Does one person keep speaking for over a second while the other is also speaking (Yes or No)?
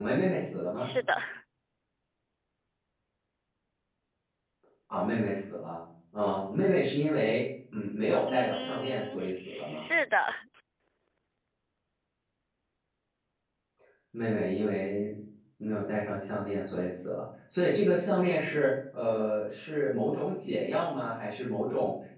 Yes